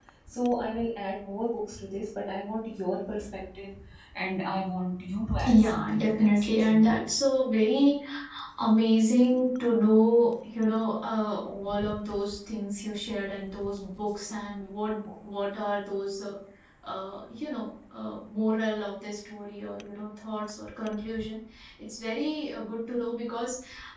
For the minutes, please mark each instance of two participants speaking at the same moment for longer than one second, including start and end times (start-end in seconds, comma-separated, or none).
5.4-7.0